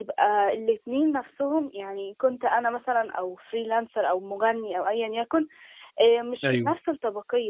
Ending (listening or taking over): listening